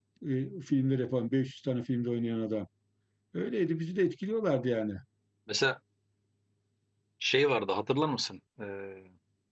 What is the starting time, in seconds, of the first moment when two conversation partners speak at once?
none

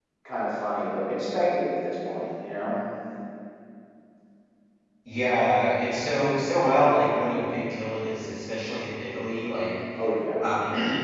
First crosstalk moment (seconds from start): none

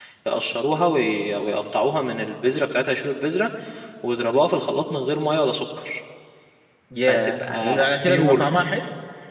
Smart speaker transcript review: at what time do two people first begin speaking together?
7.0 s

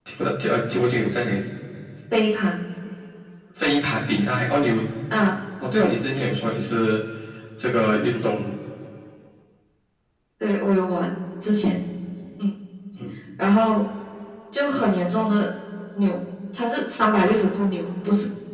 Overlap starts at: none

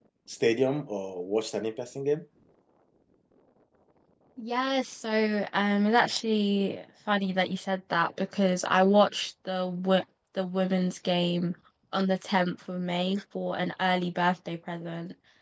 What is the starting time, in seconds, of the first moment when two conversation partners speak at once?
none

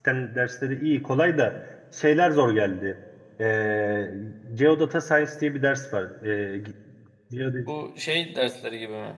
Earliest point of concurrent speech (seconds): none

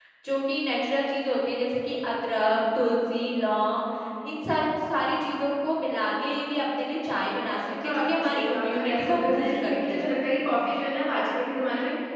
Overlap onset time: 7.6 s

